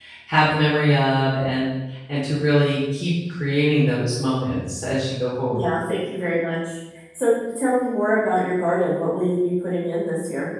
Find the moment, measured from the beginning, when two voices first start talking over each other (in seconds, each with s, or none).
none